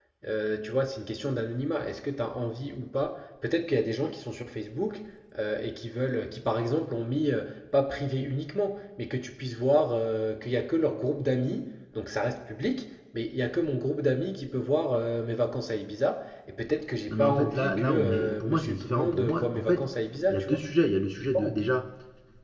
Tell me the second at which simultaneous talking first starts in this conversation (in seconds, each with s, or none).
17.1 s